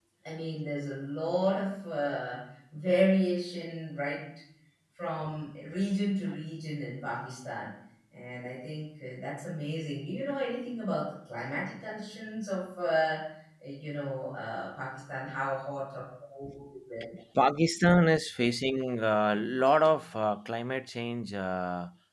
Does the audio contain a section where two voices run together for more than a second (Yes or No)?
No